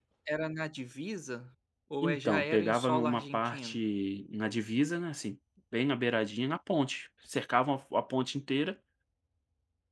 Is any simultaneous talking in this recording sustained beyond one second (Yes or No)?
Yes